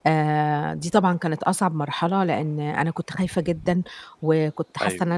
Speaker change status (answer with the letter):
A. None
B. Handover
A